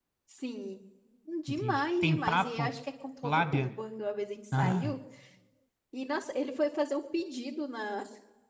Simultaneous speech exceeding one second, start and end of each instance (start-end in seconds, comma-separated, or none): 1.5-2.7